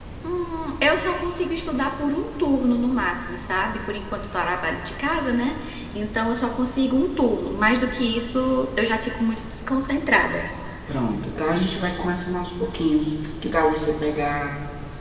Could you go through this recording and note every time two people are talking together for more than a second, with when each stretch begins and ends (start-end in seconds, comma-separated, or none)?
none